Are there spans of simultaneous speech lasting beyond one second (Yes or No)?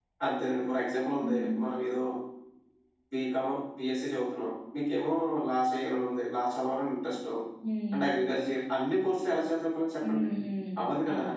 No